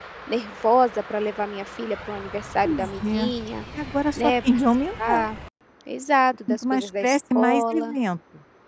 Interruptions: present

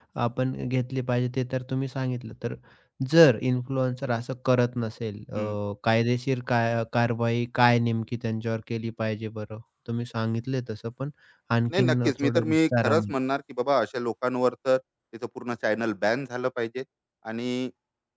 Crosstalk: present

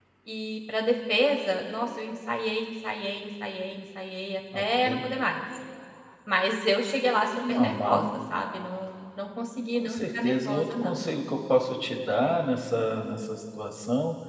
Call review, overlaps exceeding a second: present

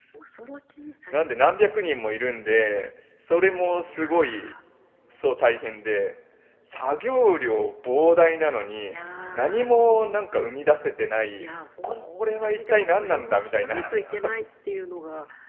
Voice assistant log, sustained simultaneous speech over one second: present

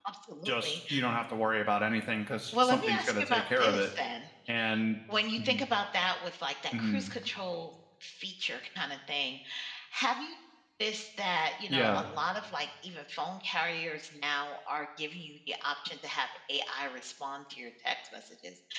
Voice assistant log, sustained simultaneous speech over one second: present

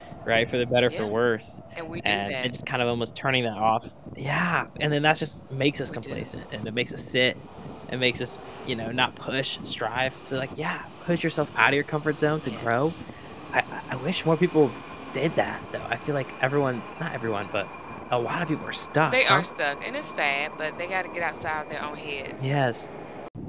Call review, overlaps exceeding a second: none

